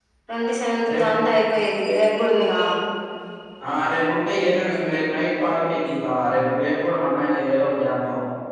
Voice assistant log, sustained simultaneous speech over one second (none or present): none